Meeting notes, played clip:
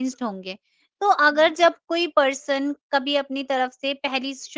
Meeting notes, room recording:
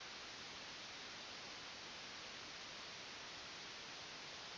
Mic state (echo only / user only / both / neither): neither